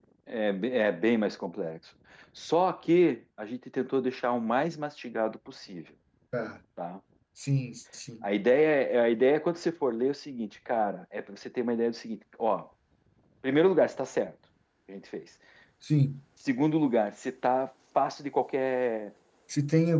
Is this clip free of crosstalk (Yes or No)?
Yes